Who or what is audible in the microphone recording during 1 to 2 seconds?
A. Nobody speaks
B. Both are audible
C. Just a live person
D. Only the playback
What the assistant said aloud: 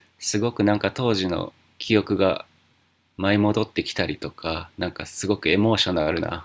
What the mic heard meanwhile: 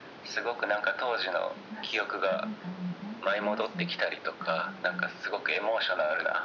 B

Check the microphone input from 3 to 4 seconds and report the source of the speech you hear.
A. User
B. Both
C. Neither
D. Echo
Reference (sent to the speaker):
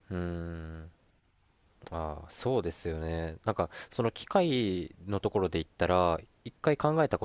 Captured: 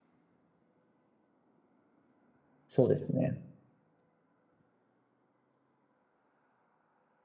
A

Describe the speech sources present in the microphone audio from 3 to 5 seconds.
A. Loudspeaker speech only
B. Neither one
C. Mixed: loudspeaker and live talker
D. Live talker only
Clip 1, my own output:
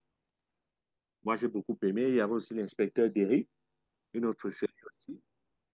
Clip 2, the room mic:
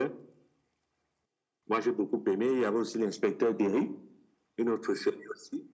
A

